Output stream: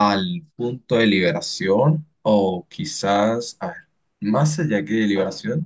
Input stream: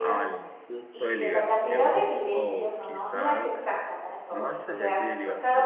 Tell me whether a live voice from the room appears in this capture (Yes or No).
Yes